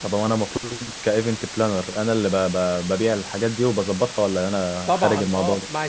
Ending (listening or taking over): taking over